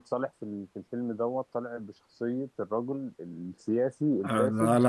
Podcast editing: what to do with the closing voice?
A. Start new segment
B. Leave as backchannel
A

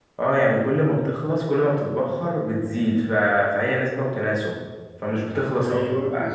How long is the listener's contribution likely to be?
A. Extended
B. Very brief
A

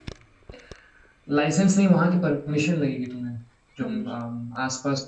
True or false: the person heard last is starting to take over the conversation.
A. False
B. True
A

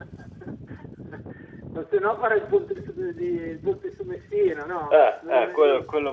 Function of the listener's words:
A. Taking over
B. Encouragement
A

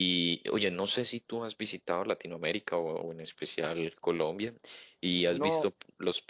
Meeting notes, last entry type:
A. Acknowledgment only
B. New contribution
A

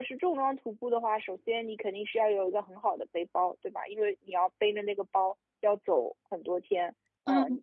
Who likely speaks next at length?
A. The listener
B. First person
A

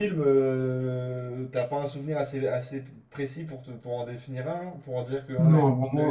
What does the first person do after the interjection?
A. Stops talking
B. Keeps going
A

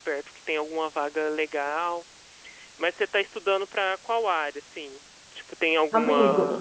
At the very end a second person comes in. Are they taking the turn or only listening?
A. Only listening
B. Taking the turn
A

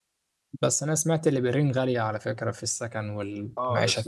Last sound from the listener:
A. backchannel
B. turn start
B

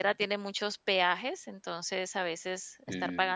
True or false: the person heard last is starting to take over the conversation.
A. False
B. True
A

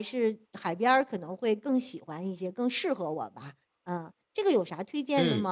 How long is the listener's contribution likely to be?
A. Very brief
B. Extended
B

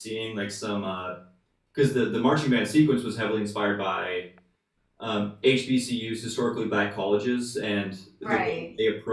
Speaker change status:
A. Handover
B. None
B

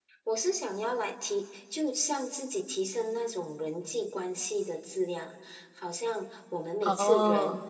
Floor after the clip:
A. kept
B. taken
A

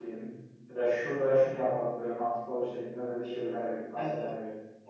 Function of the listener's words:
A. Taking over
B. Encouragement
A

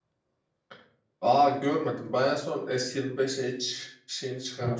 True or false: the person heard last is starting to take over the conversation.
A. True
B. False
A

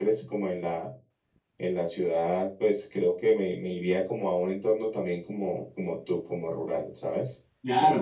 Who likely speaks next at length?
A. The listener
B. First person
A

